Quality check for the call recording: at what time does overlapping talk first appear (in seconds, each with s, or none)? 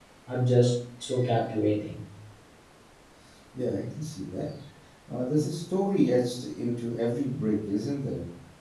none